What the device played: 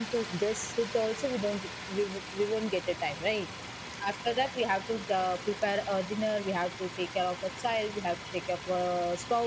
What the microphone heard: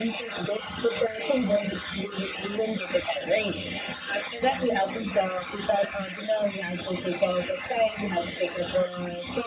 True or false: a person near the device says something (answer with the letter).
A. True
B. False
B